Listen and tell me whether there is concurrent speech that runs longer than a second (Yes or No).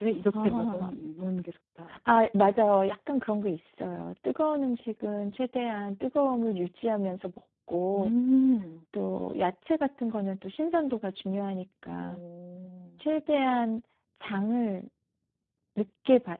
No